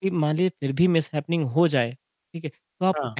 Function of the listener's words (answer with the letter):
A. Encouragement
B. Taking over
A